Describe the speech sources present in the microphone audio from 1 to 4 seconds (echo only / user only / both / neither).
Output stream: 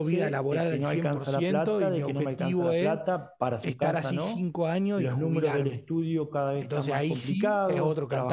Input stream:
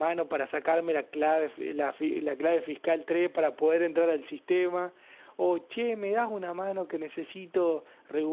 user only